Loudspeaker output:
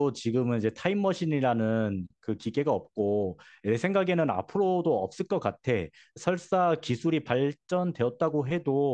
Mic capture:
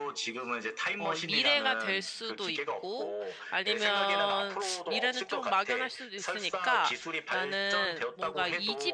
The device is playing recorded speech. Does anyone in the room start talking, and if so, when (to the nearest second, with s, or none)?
1 s